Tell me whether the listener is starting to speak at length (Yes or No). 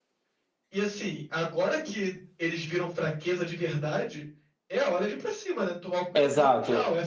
Yes